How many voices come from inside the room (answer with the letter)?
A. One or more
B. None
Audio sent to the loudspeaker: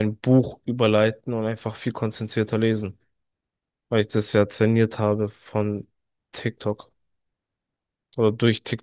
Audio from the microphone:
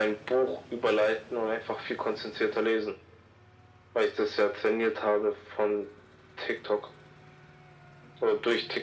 B